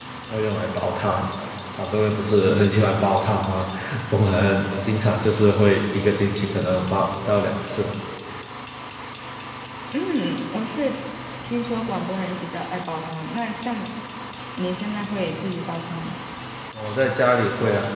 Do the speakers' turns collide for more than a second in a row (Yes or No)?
No